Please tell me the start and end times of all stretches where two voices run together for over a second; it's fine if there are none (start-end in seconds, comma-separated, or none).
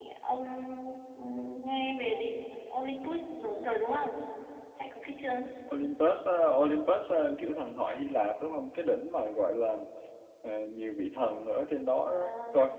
none